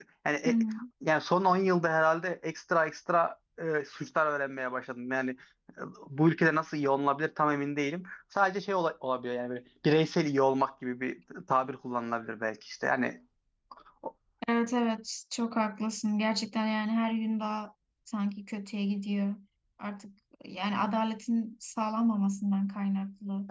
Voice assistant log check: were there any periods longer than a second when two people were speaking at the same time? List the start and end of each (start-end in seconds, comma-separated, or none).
none